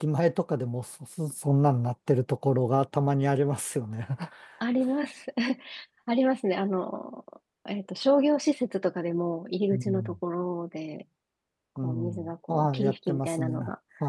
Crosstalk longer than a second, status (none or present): present